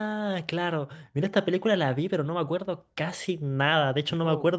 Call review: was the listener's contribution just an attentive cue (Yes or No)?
Yes